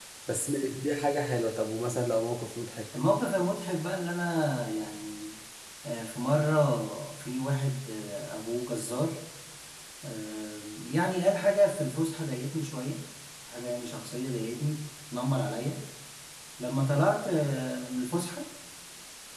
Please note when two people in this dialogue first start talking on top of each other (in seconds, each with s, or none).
none